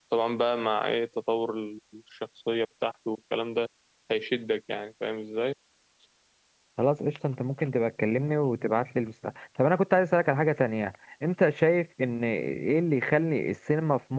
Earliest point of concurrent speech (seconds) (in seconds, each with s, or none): none